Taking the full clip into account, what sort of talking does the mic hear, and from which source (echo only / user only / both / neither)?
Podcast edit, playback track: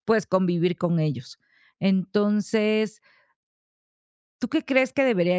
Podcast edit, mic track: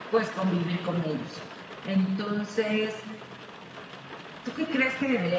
echo only